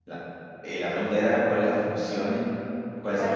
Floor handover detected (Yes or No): Yes